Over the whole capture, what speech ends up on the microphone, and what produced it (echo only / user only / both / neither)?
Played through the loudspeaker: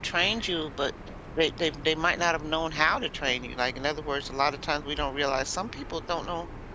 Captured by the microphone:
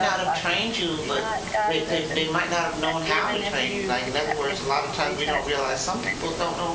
both